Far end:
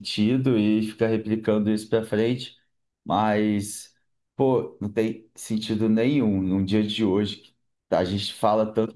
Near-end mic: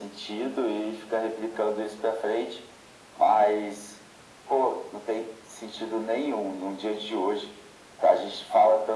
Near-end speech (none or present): none